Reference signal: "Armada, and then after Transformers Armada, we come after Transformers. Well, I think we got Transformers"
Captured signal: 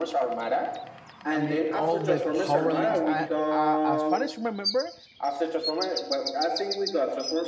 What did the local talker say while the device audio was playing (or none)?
I mean, all the power links. I, I, as far as remember,